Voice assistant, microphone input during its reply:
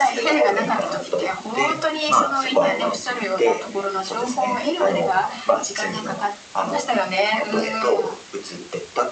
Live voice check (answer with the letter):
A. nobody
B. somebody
A